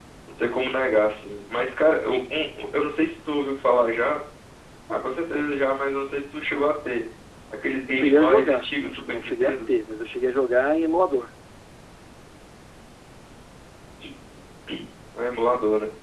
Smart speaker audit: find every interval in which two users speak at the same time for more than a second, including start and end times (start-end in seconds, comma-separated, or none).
7.9-9.6